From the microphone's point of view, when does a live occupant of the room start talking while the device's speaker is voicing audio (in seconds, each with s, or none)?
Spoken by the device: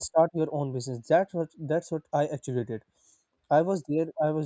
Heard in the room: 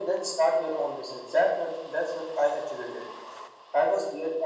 none